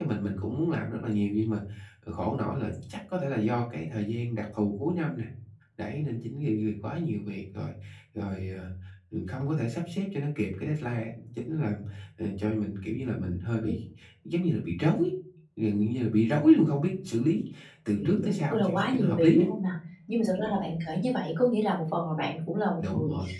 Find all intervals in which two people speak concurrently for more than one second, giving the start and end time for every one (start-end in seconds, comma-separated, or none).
18.0-19.5